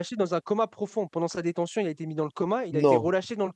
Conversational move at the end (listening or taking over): listening